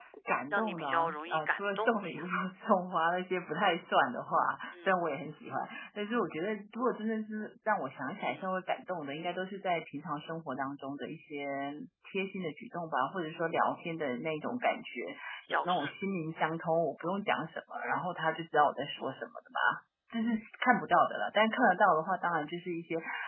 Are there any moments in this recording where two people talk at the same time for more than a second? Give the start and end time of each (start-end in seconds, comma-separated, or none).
0.5-2.1